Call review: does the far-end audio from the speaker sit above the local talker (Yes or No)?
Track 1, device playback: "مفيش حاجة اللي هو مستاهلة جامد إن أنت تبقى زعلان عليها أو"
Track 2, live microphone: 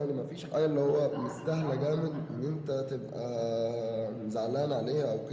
Yes